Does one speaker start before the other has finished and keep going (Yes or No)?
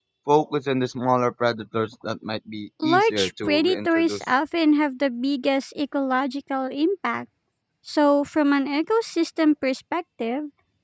Yes